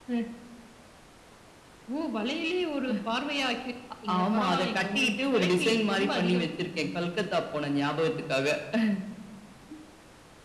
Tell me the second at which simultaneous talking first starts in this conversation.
4.1 s

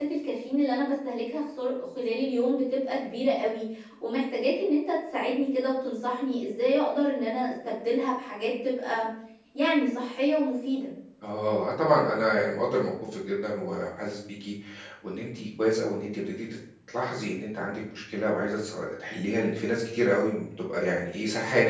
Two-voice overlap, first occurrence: none

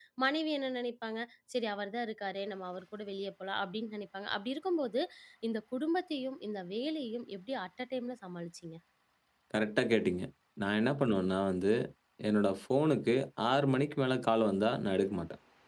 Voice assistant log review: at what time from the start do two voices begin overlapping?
none

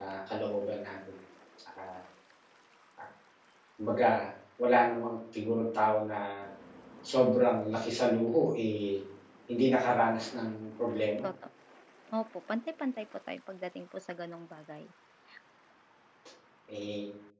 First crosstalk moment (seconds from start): none

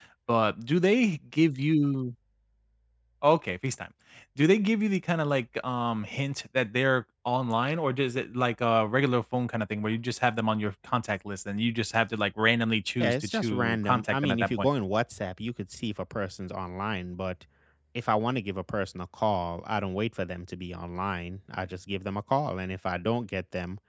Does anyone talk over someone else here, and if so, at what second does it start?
13.0 s

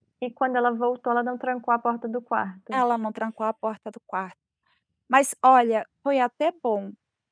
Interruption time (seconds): none

